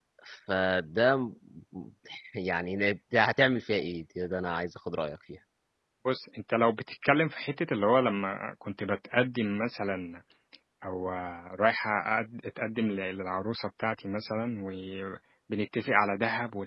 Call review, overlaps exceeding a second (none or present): none